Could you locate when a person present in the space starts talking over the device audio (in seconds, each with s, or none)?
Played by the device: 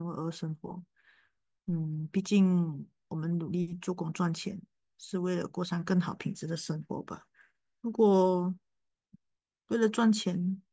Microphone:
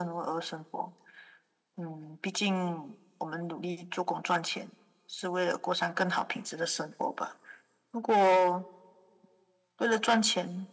none